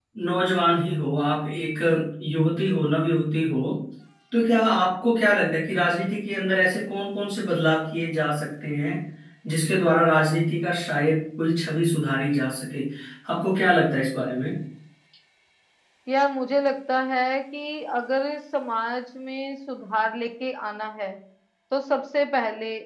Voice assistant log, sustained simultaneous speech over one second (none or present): none